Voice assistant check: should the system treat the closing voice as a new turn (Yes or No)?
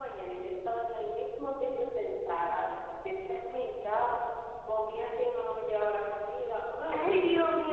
Yes